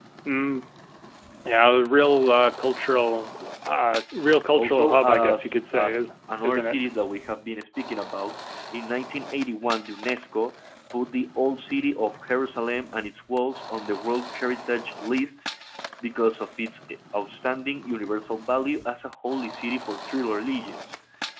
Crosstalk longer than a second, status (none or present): present